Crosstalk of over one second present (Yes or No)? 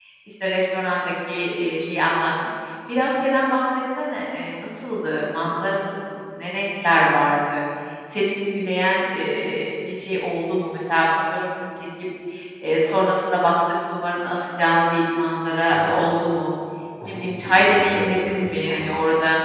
Yes